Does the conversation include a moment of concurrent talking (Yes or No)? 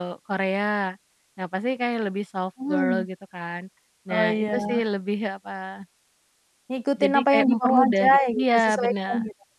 Yes